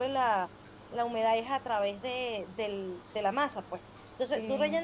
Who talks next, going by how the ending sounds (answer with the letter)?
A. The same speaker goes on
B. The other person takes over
A